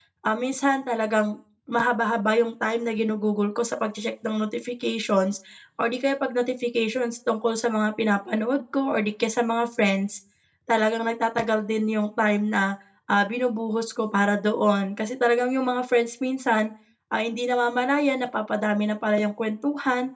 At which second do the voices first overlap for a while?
none

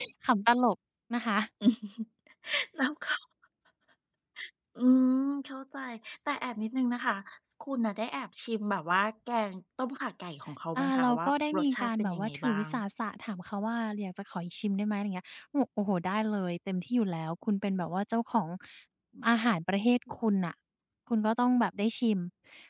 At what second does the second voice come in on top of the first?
10.8 s

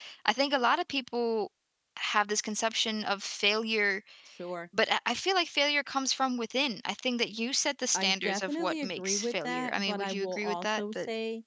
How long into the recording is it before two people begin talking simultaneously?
7.9 s

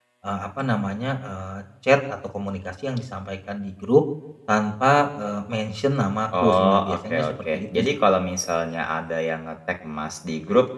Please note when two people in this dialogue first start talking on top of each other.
6.3 s

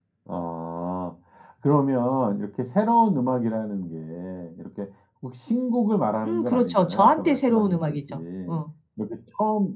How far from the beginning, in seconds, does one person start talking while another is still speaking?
6.2 s

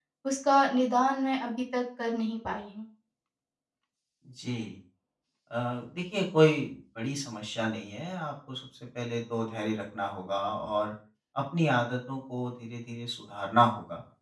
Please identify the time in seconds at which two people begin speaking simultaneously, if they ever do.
none

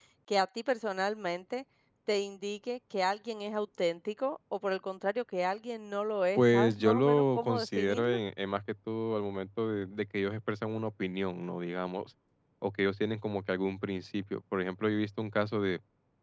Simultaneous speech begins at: 6.3 s

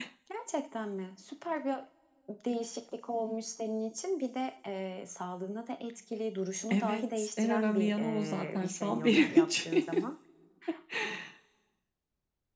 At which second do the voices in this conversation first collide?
6.7 s

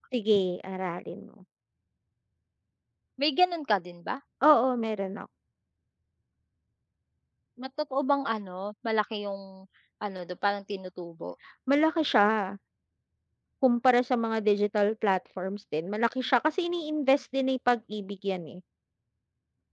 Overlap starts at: none

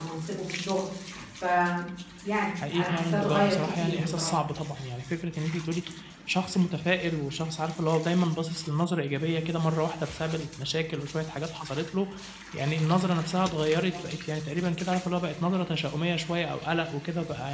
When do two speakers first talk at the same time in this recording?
2.7 s

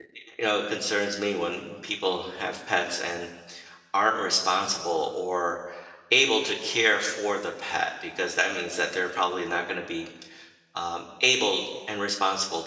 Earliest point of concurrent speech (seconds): none

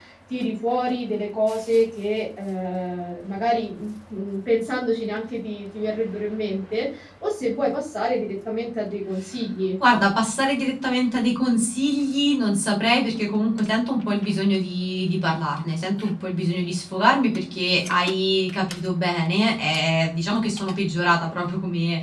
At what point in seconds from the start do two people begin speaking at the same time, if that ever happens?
none

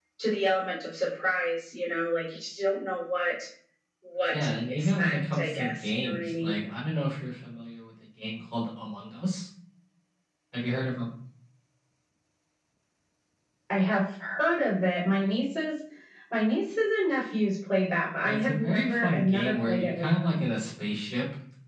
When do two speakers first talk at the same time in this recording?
4.3 s

